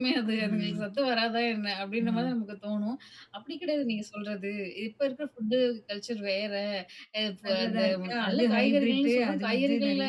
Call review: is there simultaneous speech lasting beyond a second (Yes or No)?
Yes